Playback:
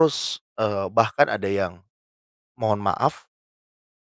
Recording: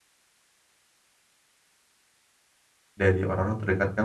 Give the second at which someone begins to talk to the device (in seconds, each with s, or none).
3.0 s